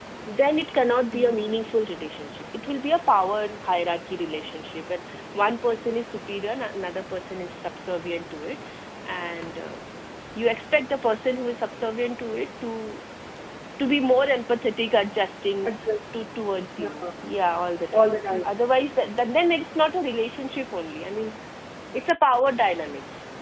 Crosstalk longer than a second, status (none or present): none